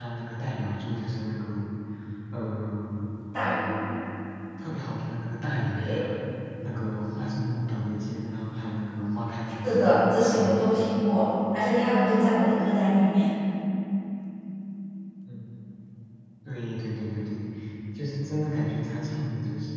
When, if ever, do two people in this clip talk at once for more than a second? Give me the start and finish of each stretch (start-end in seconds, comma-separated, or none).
none